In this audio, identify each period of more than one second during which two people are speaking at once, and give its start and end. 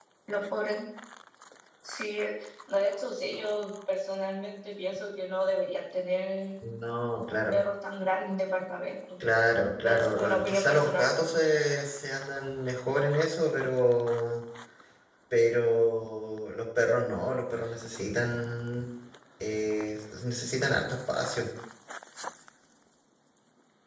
9.8-11.1

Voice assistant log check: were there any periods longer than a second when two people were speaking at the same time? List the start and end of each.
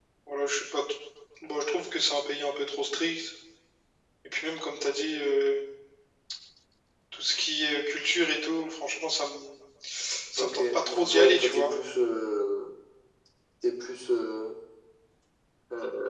10.4-11.7

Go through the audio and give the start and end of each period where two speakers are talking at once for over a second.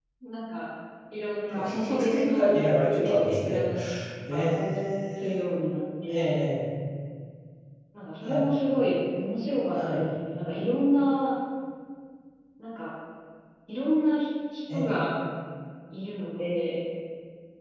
1.6-3.7

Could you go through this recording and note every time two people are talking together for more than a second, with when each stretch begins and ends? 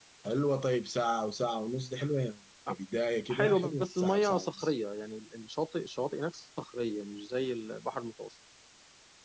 3.3-4.7

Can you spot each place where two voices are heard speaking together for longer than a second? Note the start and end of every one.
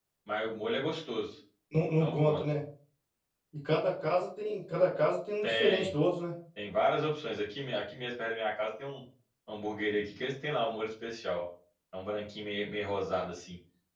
none

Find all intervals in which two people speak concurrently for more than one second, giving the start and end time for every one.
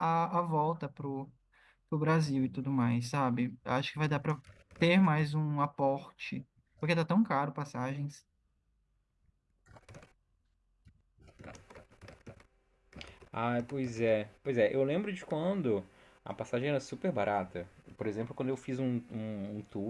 none

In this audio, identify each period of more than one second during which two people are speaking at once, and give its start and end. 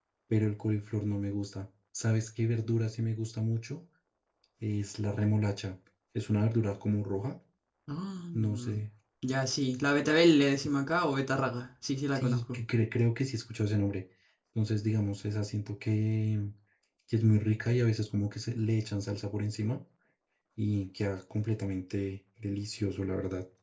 none

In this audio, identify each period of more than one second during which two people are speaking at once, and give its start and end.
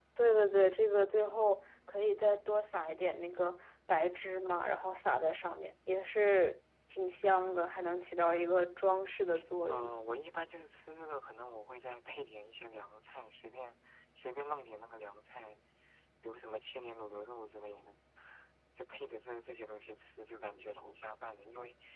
none

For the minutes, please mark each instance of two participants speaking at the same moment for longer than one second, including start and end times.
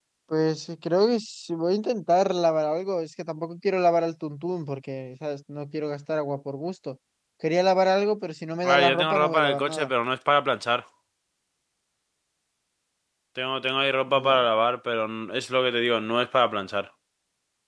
8.6-9.9

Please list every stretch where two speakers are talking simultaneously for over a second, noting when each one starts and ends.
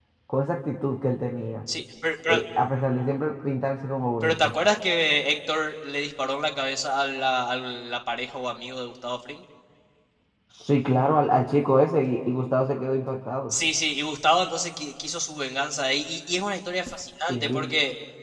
none

